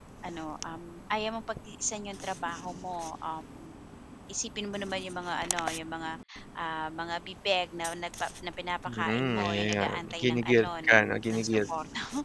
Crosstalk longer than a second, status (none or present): present